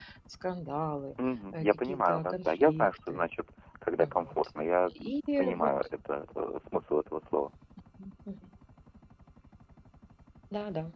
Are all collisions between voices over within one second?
No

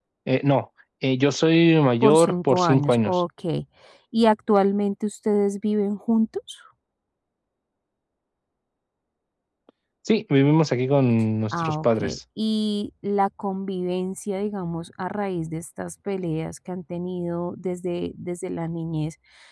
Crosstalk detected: Yes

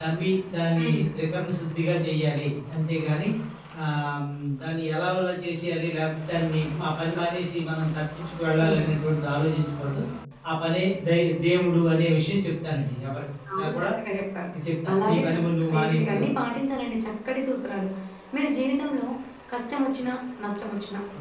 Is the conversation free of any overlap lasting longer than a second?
No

